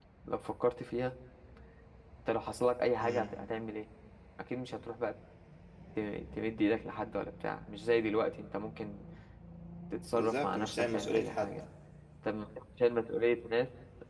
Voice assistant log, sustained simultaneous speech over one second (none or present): present